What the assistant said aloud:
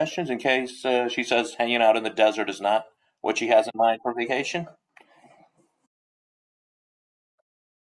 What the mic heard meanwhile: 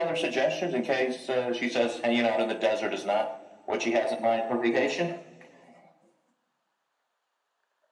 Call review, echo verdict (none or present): present